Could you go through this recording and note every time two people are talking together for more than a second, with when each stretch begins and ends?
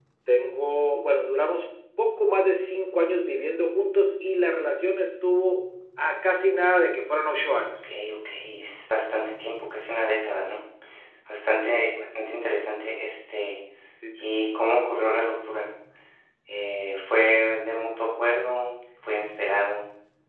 none

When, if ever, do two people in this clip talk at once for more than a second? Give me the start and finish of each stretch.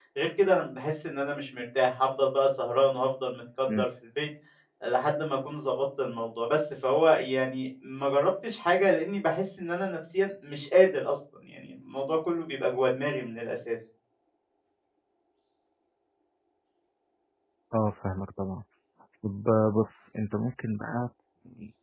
none

